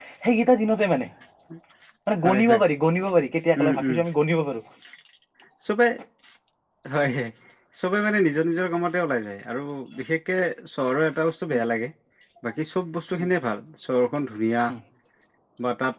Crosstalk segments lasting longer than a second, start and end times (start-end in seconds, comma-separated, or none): none